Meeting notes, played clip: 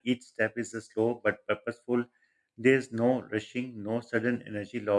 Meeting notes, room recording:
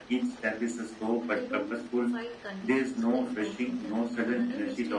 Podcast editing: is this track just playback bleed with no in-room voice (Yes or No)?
No